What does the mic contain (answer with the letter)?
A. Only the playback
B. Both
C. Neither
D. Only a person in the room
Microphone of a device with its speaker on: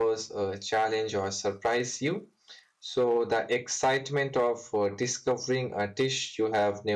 D